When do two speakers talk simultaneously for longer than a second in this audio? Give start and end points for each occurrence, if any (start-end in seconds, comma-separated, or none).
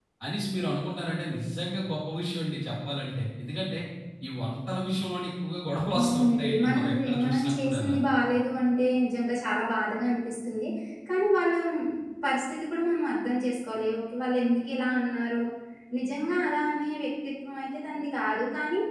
6.0-8.0